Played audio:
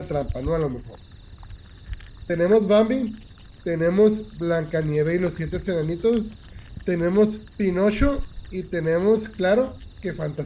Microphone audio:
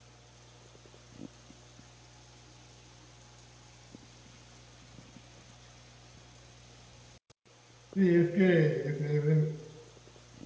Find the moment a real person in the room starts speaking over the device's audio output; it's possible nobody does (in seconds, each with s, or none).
7.9 s